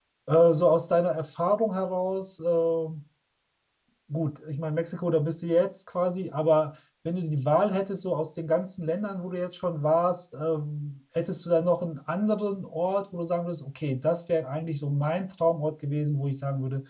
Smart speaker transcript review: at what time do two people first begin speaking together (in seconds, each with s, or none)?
none